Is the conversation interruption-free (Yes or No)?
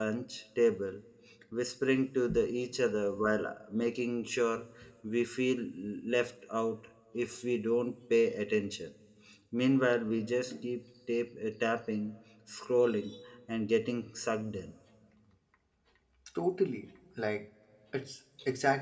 Yes